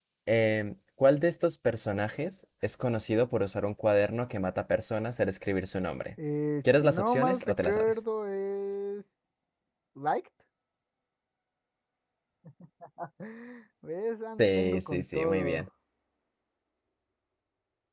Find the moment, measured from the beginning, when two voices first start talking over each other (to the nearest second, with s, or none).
7 s